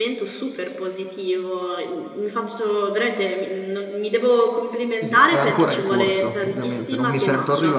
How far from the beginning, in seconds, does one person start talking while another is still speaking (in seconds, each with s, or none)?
5.0 s